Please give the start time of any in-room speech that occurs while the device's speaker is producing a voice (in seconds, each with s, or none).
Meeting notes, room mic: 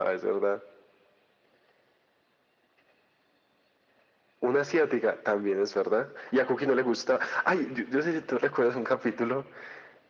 none